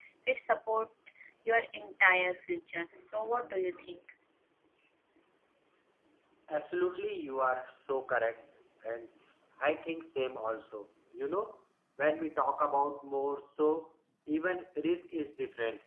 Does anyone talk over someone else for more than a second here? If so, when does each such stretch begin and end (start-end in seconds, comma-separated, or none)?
none